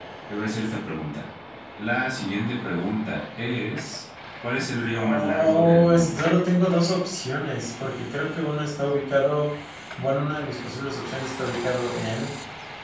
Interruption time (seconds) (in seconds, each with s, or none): 5.0 s